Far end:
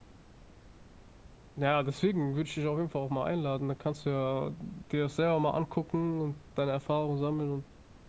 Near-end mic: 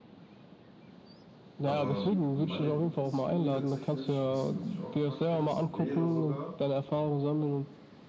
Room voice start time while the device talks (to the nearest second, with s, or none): 2 s